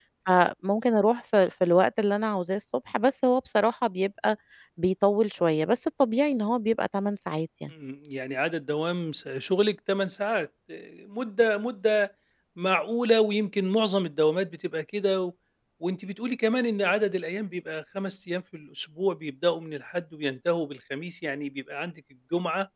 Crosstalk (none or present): none